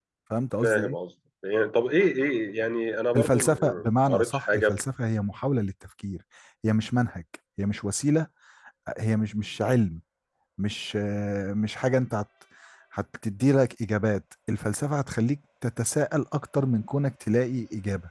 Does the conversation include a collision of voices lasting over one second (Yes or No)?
Yes